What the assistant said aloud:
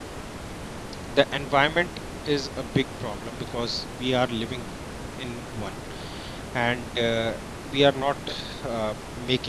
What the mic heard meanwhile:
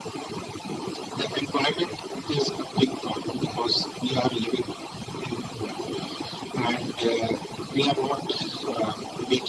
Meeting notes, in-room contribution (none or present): none